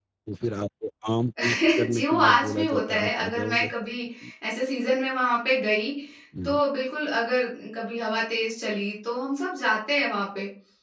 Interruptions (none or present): present